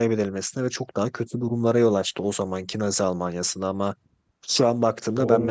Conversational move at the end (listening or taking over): listening